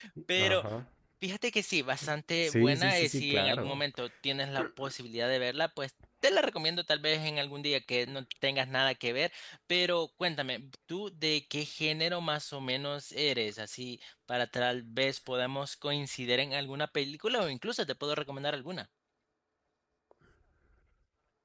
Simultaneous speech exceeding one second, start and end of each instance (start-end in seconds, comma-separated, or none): 2.4-3.8